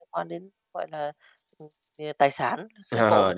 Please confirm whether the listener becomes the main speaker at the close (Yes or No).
Yes